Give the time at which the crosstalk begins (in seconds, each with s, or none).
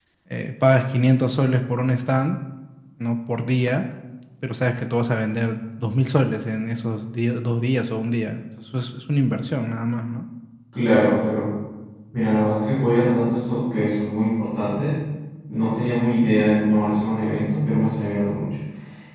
none